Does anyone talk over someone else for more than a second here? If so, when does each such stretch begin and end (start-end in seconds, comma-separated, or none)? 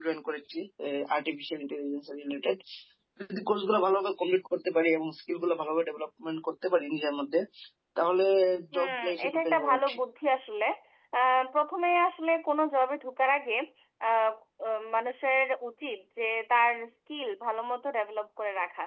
8.7-10.0